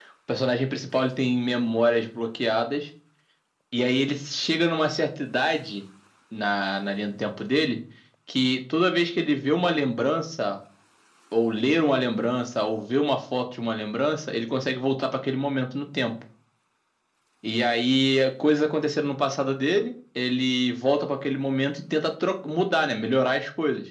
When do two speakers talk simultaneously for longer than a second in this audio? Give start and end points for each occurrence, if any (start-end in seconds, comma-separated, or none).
none